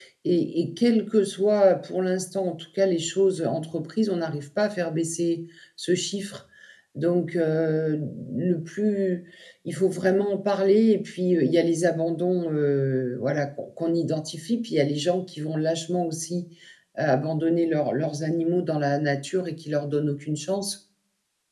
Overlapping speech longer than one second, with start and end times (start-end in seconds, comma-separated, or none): none